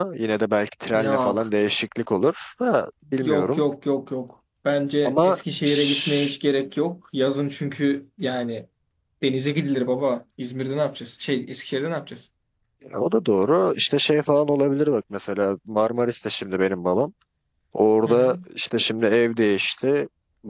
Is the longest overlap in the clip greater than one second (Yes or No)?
Yes